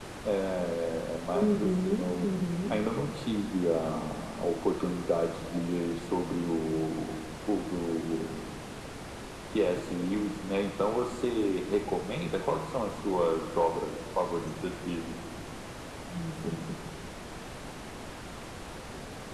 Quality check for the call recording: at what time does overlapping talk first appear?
1.3 s

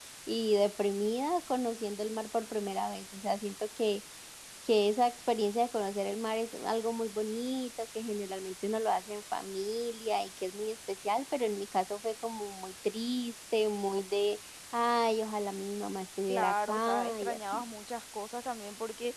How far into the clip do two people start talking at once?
16.3 s

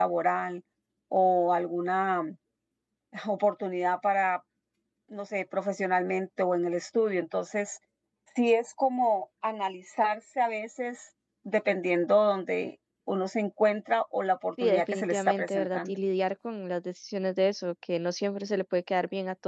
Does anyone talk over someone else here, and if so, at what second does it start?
14.6 s

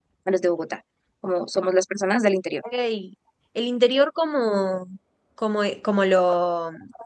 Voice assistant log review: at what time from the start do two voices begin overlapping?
none

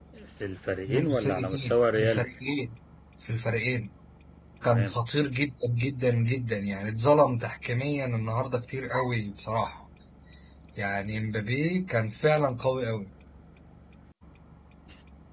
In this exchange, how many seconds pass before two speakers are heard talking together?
0.9 s

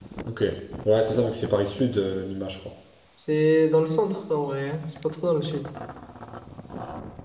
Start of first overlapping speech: none

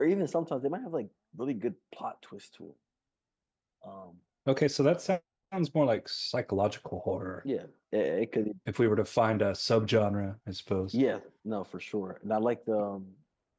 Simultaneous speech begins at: none

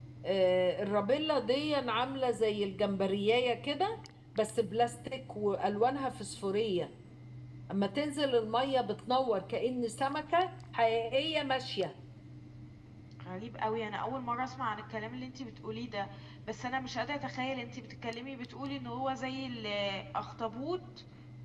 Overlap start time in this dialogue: none

